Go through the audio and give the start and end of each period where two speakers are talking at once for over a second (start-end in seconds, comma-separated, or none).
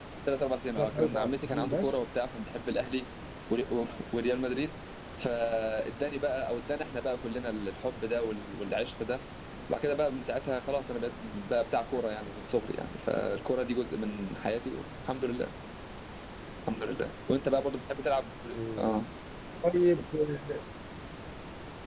0.8-2.0